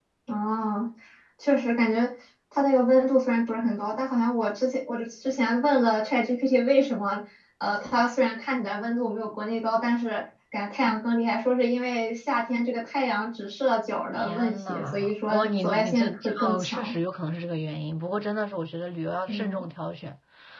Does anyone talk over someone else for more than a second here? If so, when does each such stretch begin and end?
14.2-16.9

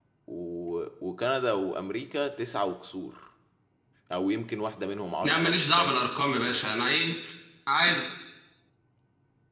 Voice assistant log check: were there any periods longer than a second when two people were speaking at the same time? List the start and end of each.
5.2-6.7

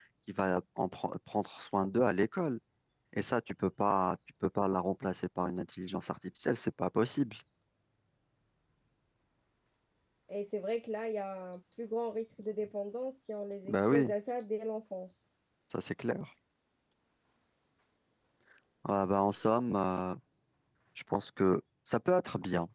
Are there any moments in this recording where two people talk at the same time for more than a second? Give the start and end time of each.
none

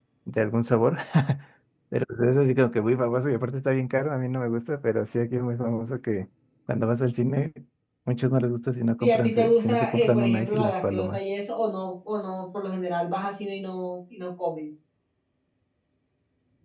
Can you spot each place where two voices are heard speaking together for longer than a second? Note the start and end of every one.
9.0-11.2

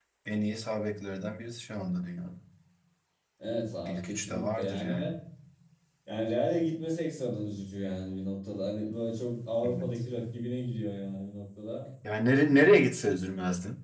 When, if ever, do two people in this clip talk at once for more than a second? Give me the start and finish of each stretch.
3.9-5.1

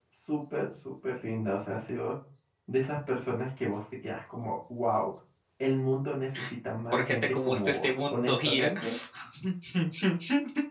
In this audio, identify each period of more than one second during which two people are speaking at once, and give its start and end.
6.9-8.7

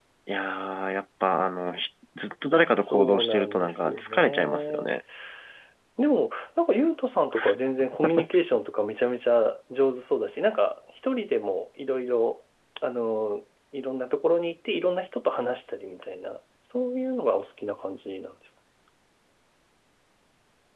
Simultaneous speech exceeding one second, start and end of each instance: 2.8-4.9

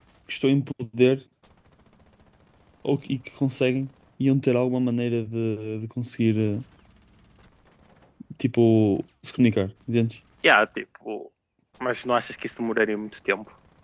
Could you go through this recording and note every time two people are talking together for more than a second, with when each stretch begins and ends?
none

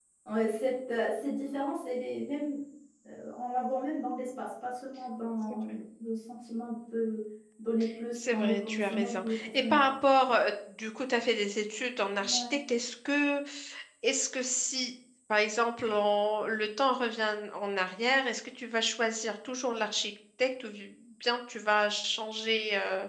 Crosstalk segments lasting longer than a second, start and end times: 8.2-9.9

